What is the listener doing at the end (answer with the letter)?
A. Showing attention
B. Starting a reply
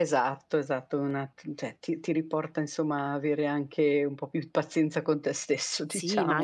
B